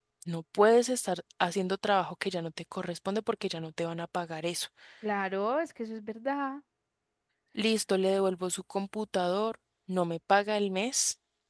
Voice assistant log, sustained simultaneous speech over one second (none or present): none